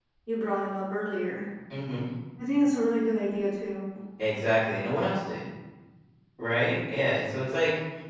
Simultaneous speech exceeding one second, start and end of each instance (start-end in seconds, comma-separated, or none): none